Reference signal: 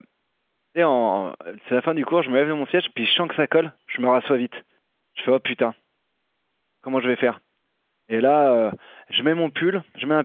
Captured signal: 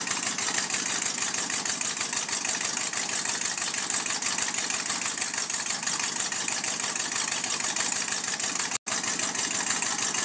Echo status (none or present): none